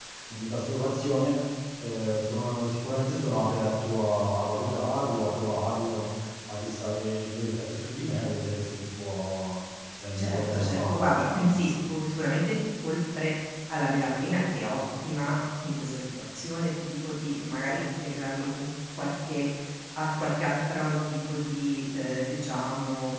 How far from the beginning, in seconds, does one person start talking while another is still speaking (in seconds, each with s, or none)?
10.2 s